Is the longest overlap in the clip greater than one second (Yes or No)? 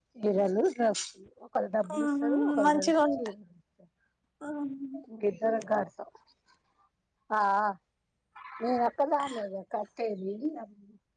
Yes